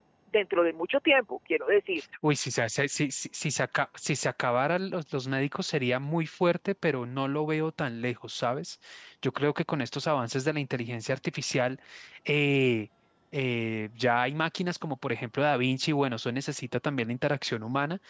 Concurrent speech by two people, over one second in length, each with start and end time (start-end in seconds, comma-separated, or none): none